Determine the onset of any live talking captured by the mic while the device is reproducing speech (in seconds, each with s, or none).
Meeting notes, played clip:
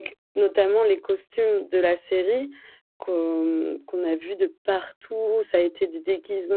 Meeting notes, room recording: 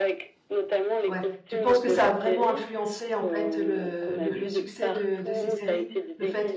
1.1 s